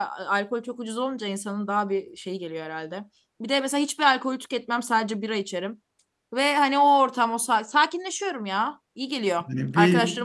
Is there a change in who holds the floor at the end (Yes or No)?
Yes